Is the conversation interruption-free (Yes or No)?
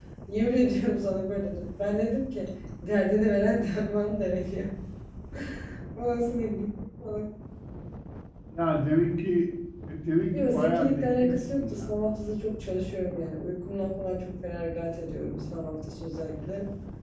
No